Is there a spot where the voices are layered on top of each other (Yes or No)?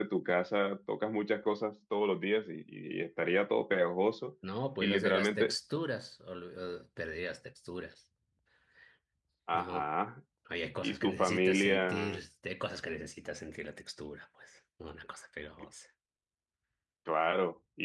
Yes